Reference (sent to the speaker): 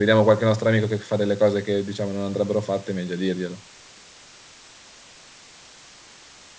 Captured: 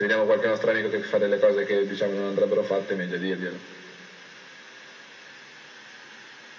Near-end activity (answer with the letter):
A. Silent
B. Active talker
A